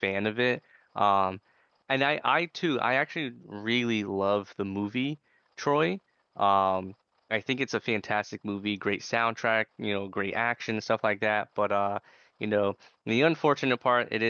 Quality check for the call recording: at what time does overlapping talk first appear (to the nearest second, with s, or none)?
none